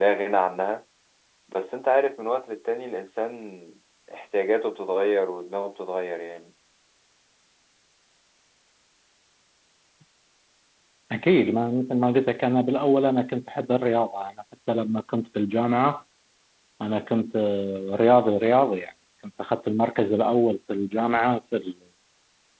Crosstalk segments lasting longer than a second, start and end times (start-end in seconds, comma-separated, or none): none